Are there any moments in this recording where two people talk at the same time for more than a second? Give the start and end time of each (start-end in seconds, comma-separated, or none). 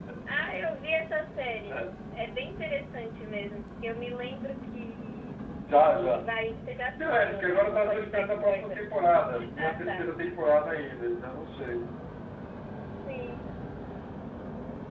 7.0-8.9